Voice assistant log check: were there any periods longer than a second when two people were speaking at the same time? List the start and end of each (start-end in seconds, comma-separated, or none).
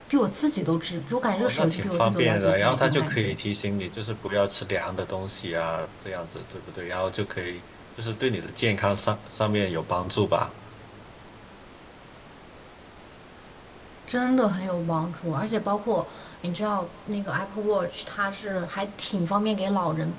1.3-3.4